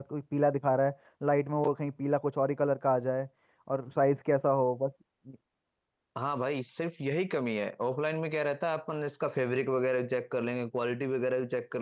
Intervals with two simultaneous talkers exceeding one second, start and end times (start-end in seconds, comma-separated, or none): none